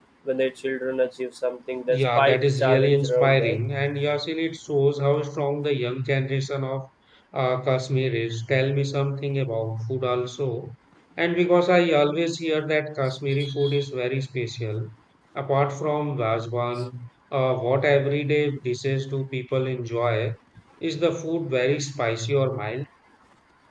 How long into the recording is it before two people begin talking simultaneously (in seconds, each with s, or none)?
1.9 s